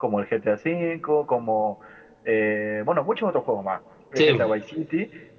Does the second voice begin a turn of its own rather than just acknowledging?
No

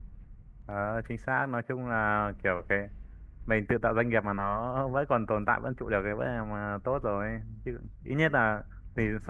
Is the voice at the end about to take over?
No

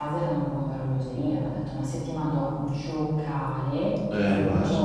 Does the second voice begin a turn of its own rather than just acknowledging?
No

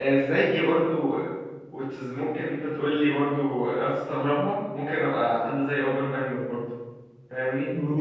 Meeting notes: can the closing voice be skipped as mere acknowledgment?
No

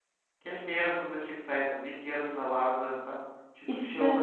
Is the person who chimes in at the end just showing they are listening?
Yes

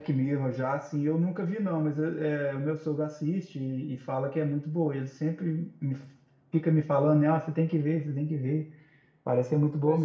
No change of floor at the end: No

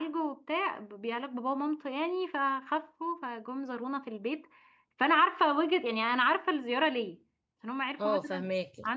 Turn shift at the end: No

